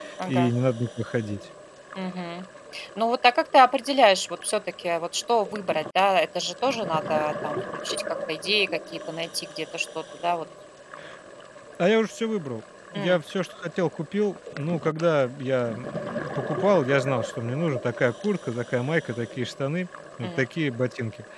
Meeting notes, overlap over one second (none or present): none